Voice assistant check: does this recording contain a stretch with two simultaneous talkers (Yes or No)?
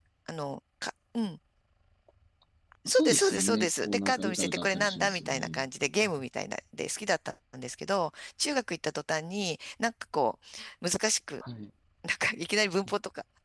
Yes